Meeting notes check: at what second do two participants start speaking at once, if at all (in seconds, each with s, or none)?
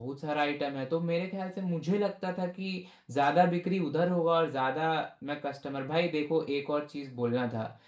none